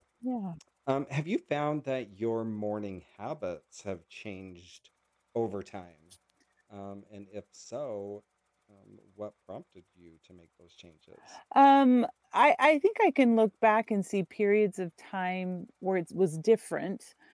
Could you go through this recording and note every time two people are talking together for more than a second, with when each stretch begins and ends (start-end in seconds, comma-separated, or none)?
none